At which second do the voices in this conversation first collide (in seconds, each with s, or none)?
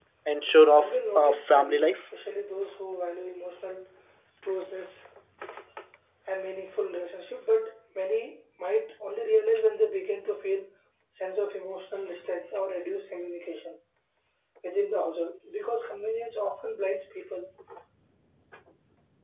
0.6 s